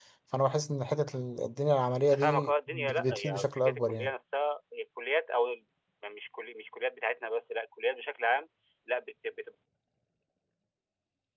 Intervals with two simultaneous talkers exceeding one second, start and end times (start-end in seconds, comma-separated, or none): 2.1-4.1